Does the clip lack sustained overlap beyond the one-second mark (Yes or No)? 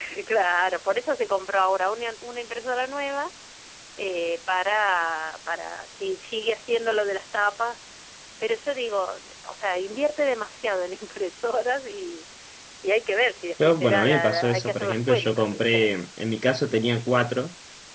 No